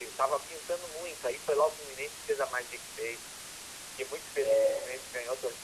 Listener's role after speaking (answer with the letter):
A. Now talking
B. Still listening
B